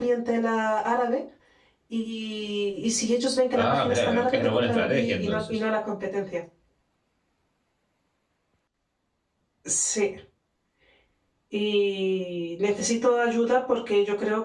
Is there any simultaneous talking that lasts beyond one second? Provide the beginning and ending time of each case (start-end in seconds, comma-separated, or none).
3.6-5.5